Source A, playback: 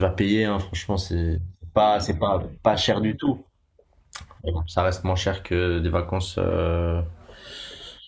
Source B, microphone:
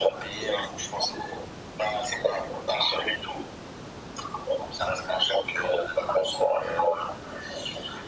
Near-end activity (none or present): none